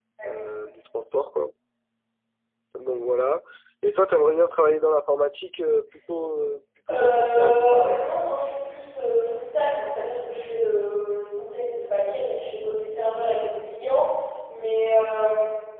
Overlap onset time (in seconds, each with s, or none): 6.9 s